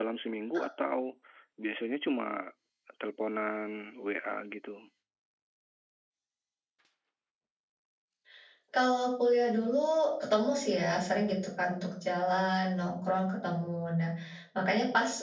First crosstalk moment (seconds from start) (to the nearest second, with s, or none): none